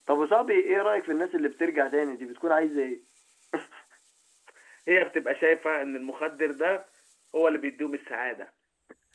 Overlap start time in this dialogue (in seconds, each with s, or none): none